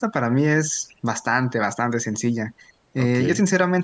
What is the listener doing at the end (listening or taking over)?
listening